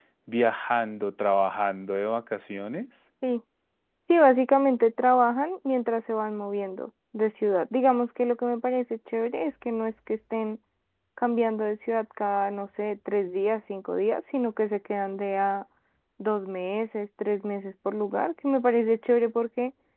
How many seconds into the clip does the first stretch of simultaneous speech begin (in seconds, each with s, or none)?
none